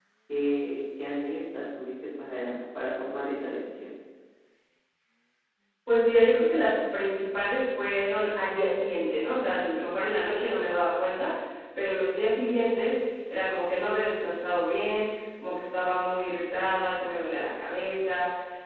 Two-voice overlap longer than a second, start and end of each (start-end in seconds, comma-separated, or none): none